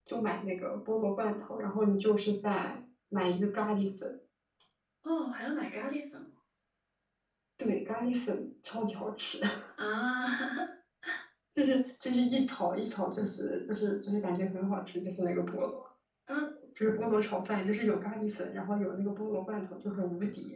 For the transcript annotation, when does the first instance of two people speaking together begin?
none

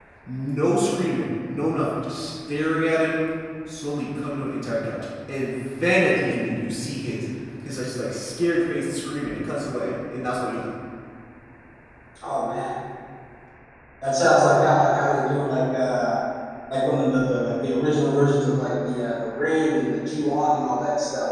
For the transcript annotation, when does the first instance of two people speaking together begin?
none

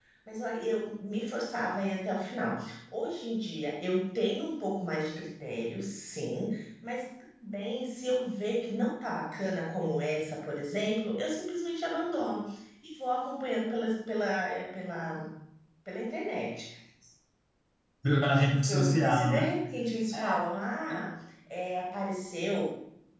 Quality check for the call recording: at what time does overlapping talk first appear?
18.1 s

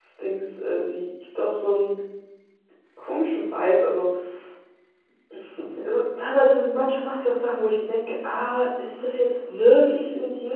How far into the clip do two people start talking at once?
none

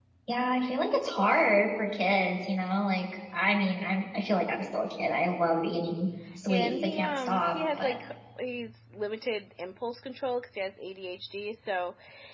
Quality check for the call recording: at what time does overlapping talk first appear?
6.5 s

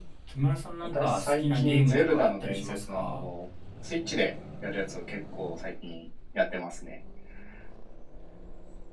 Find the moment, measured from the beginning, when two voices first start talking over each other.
0.9 s

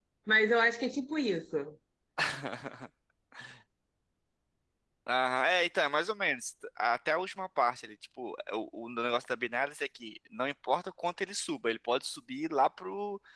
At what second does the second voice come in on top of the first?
none

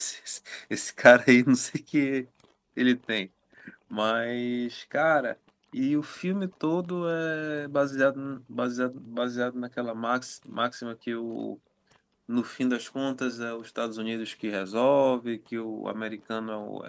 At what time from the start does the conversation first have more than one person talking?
none

